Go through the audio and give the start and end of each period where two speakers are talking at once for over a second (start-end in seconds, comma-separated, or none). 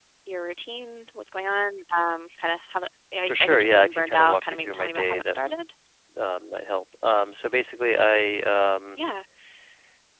3.3-5.6